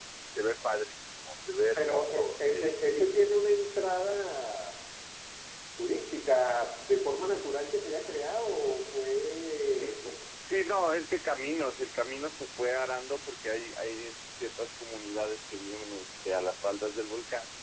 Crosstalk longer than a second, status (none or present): present